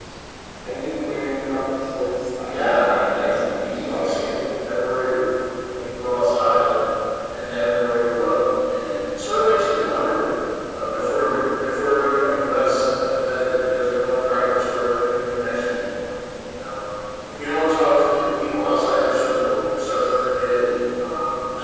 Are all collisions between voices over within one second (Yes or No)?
No